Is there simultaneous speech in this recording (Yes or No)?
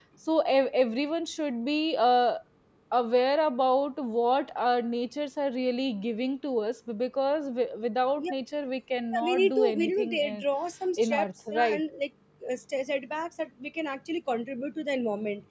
Yes